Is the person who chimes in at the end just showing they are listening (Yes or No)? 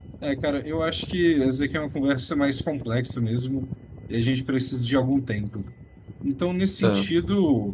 Yes